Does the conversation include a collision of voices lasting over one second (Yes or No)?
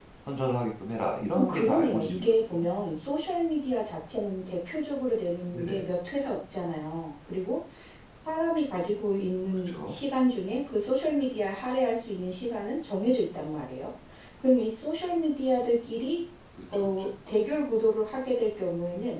Yes